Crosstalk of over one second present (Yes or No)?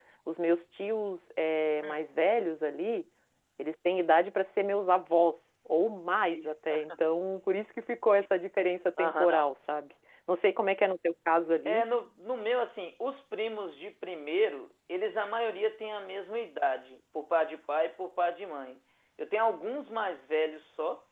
No